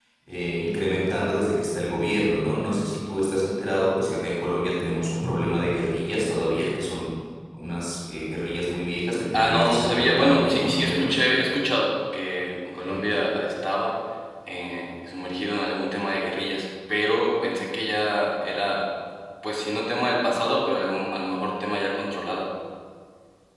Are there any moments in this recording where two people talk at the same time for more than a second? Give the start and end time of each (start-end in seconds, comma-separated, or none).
9.3-11.2